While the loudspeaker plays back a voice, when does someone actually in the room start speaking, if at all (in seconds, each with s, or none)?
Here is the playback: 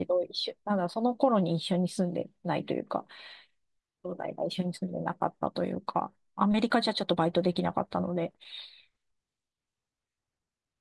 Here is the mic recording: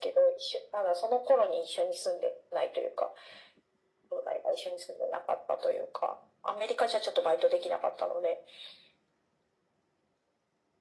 none